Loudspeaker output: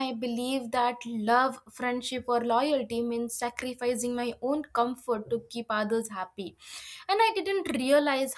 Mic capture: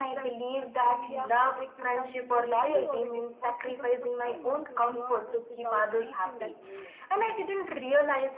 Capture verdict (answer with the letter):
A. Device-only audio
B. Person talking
B